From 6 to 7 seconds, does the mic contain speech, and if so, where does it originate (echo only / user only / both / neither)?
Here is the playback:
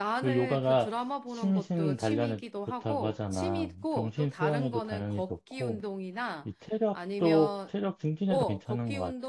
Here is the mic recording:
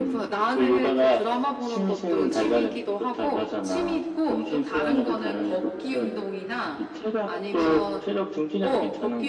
echo only